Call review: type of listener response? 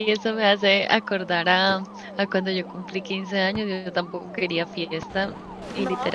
listening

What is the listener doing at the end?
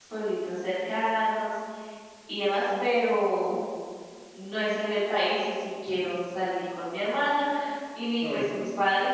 listening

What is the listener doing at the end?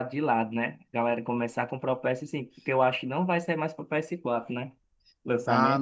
taking over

